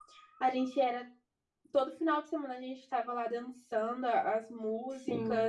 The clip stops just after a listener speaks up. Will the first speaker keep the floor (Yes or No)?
No